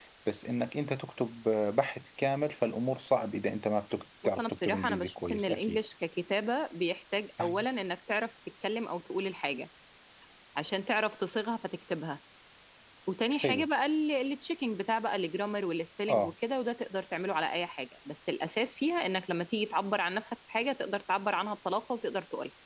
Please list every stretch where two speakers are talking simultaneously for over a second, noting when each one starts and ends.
4.2-5.8

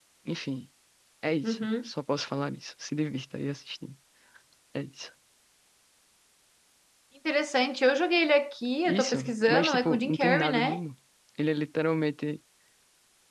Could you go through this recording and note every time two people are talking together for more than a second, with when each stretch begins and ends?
8.9-10.8

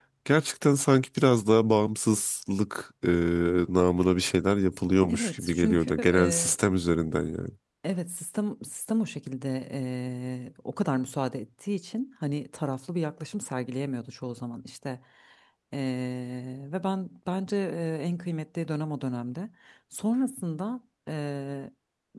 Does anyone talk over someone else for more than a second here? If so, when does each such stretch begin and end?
5.1-6.6

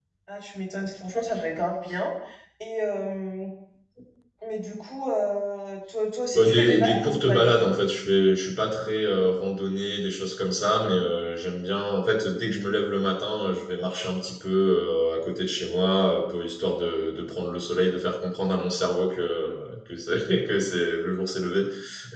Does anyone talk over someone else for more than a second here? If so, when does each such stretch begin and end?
6.3-7.7

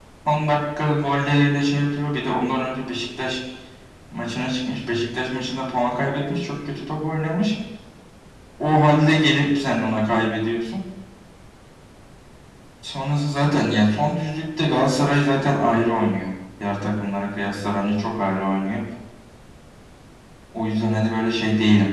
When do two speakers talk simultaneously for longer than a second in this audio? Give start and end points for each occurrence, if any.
none

